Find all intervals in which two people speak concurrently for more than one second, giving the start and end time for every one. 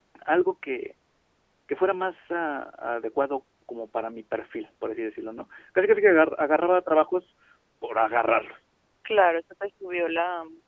none

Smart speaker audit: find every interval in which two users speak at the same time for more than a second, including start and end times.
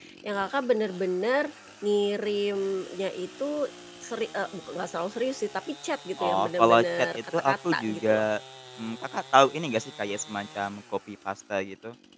6.2-8.3

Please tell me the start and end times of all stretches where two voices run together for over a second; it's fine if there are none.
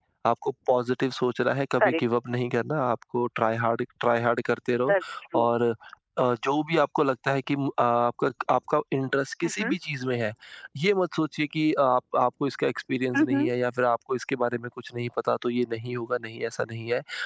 none

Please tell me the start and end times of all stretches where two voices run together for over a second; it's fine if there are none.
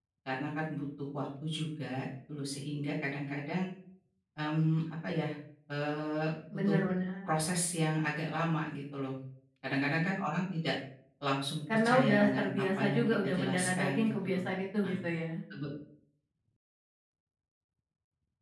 11.7-14.4

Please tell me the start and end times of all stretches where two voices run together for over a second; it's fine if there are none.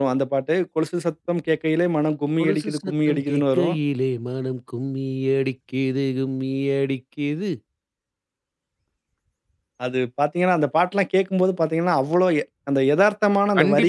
2.4-3.8

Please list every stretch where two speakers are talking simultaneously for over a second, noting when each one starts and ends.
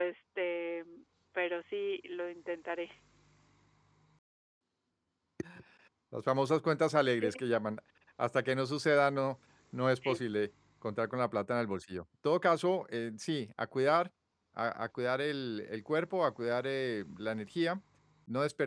none

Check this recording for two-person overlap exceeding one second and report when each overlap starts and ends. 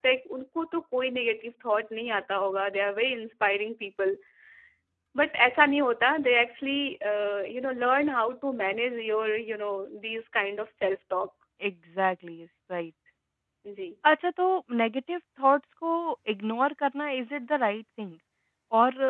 none

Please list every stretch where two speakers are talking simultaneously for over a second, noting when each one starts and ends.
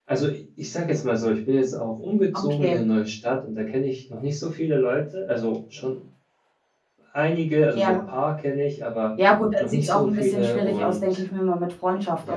9.6-11.2

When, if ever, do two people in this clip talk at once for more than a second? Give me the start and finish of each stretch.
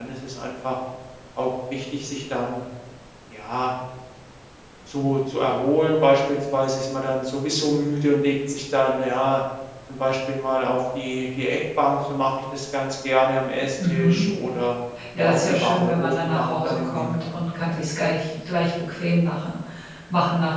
15.2-17.3

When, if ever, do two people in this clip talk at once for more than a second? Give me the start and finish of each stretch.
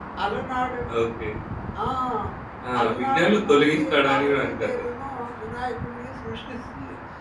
2.8-4.8

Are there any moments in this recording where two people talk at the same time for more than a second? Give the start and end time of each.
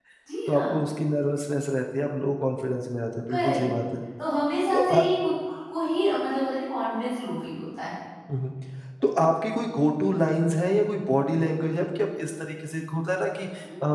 none

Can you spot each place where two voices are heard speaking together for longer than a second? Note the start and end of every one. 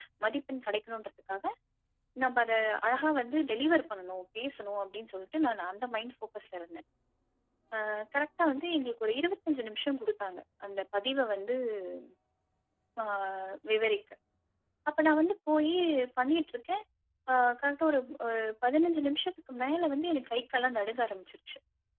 none

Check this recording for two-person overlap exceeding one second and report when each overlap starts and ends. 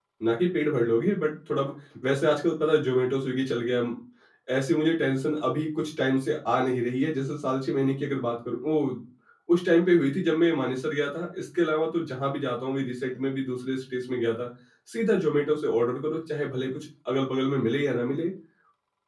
none

